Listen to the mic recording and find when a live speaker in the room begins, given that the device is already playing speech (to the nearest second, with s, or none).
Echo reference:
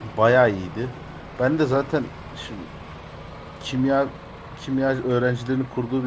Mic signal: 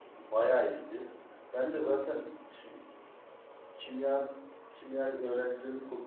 none